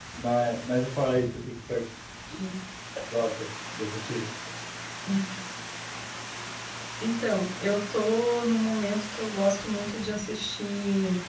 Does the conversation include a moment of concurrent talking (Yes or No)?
No